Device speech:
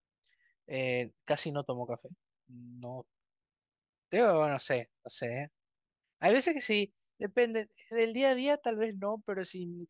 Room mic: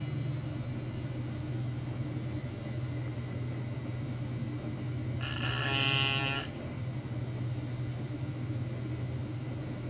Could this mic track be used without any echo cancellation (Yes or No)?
Yes